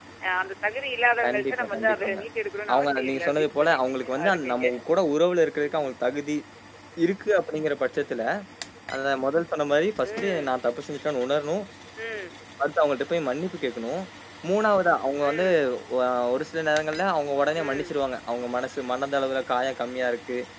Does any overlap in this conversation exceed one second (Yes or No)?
Yes